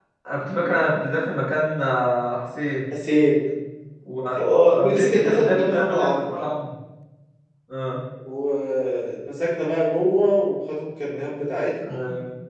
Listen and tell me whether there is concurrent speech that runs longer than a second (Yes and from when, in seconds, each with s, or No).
Yes, from 4.8 s